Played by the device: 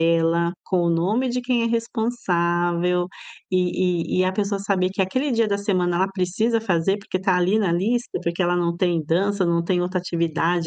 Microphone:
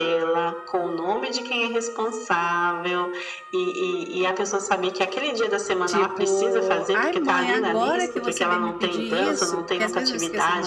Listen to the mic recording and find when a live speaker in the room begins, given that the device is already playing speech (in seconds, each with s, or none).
5.8 s